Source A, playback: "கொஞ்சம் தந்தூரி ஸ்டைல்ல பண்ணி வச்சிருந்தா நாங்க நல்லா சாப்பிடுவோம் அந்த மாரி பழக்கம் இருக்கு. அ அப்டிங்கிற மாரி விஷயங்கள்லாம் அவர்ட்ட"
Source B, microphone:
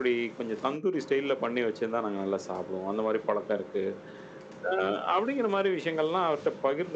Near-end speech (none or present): none